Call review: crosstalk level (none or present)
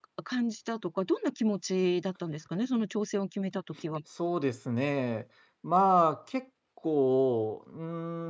none